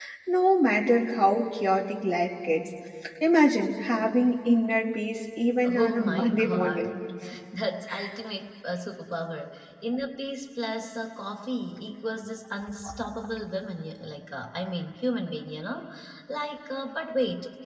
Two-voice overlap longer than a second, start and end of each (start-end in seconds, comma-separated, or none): 5.6-6.9